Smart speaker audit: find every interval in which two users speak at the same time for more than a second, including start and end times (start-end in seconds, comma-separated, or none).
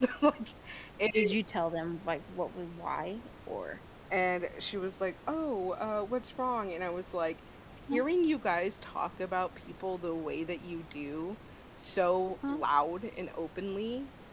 none